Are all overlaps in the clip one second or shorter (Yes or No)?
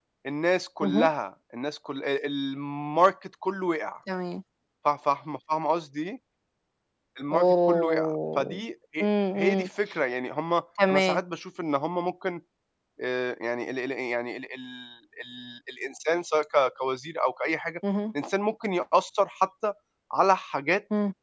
No